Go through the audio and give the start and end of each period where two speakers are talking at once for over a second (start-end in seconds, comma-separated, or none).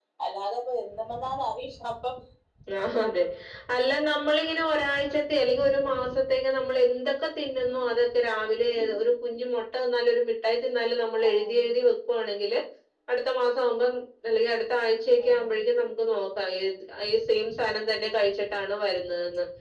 none